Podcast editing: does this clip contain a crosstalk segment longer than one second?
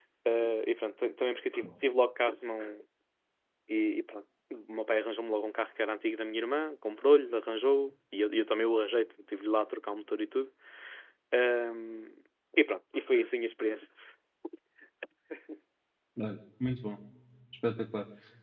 No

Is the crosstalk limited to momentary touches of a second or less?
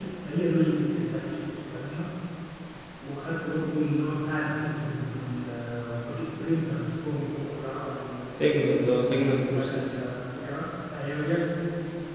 Yes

